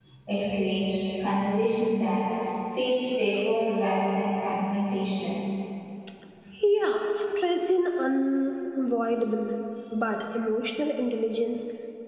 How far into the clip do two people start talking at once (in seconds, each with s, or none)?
none